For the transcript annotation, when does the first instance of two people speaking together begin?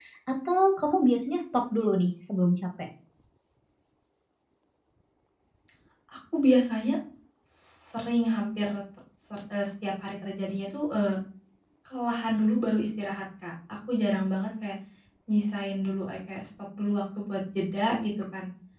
none

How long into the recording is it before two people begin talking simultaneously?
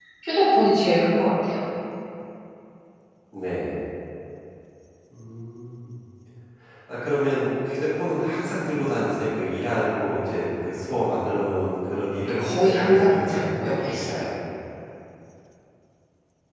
12 s

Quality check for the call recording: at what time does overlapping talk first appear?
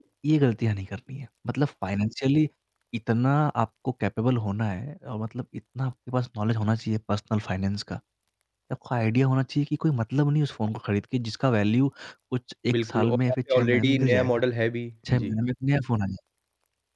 13 s

